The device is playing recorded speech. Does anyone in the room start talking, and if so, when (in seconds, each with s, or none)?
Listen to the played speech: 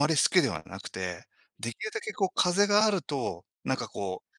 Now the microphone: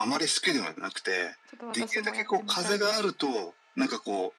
1.5 s